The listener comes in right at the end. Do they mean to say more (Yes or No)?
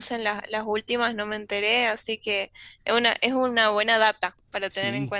Yes